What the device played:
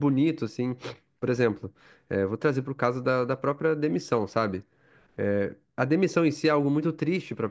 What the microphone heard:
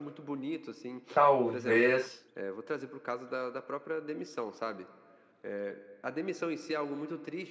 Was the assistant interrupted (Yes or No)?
Yes